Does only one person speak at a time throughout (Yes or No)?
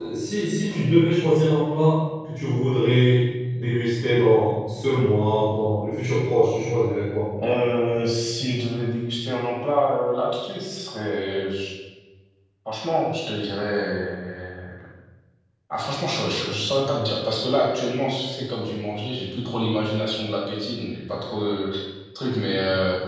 Yes